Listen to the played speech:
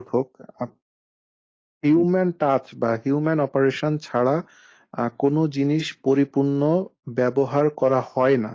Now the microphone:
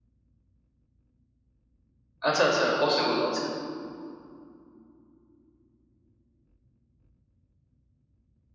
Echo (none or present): none